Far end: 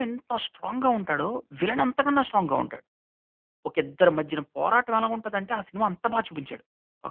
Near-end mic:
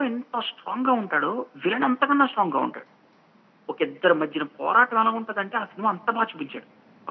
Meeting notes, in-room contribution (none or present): none